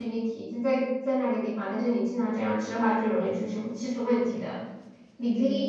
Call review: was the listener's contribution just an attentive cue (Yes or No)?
Yes